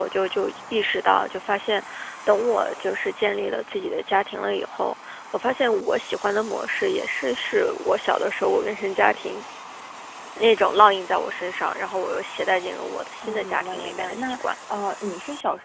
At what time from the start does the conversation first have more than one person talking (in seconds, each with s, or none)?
13.2 s